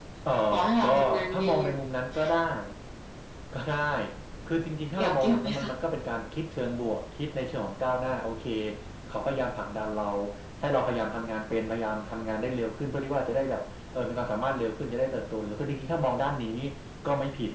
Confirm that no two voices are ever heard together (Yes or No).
No